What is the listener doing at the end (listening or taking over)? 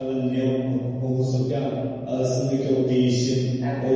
listening